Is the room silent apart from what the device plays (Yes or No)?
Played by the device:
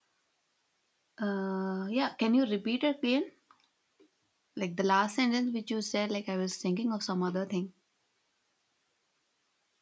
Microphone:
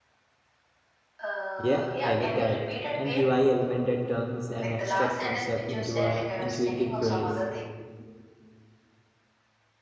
No